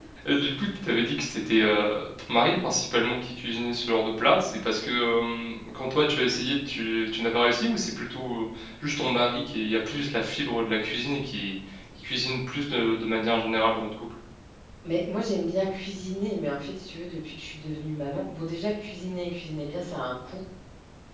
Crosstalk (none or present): none